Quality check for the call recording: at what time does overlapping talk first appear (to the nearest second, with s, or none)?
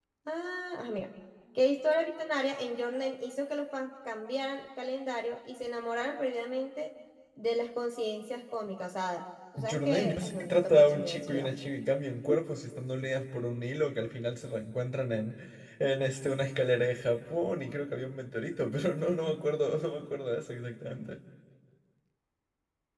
10 s